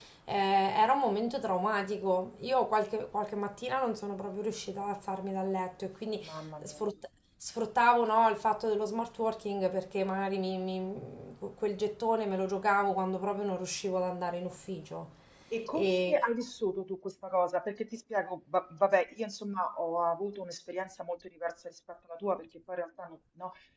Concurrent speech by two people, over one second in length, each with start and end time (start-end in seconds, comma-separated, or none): none